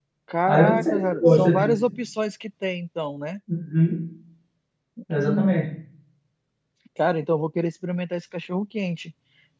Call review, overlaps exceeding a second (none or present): present